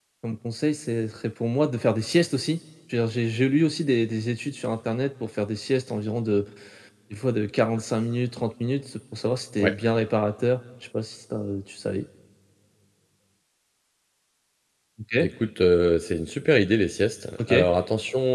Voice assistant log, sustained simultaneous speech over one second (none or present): none